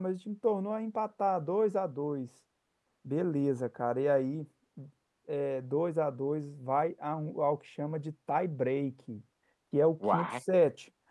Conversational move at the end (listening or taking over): listening